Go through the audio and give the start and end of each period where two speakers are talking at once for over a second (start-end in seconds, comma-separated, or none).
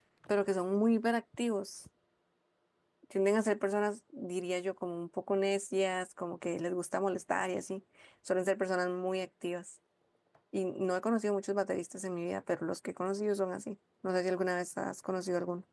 none